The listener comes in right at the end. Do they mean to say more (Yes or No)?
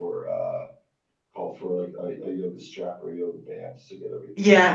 Yes